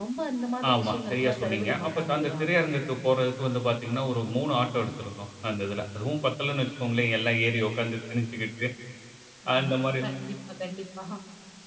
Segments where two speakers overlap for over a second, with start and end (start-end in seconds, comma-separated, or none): 0.7-2.4